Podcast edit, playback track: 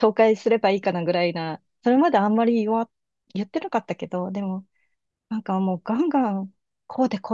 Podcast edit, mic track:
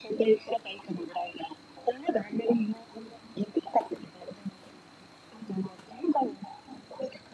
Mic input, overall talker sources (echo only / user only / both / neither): echo only